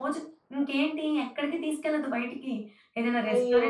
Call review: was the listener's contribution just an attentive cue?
Yes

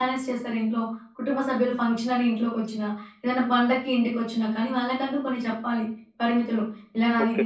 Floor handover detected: No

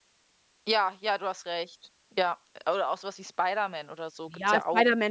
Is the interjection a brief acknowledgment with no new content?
No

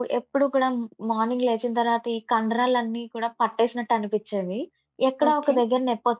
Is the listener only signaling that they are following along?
Yes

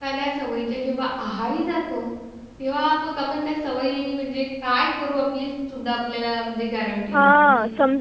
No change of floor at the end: No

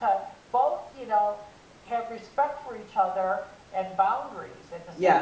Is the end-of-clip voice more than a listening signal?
Yes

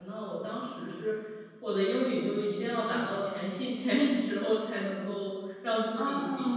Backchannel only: No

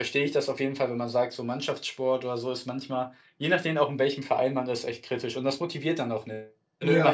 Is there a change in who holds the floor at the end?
No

